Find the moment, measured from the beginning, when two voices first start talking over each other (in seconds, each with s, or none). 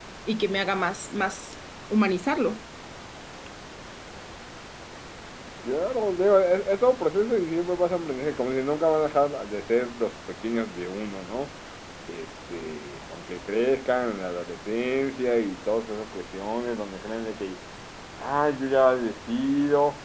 none